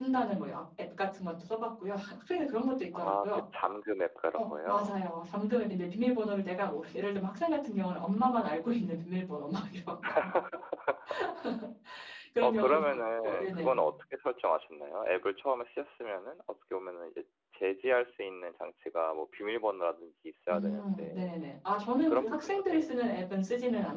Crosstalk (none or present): present